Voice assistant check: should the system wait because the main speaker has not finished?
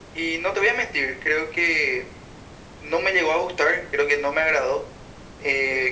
Yes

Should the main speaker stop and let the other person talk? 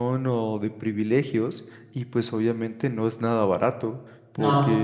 No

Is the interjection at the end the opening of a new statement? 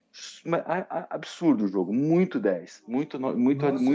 Yes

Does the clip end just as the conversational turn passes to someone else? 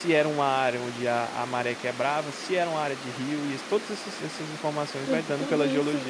Yes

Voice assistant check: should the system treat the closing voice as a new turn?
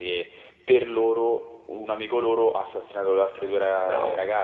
Yes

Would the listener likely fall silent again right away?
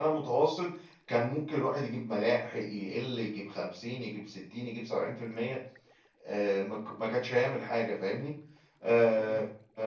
Yes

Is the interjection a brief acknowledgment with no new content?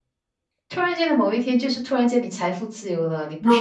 Yes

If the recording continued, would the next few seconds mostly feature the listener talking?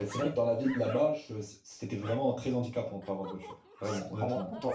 Yes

